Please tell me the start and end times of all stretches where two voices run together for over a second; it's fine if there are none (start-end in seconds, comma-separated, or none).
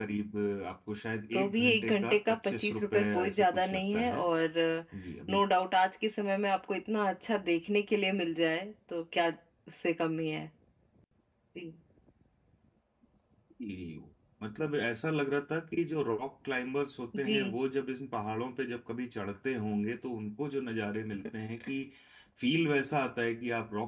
1.3-4.3